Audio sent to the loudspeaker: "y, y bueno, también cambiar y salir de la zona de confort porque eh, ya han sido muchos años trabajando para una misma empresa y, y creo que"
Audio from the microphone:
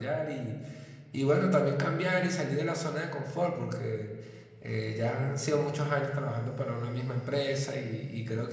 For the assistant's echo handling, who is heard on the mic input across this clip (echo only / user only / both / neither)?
echo only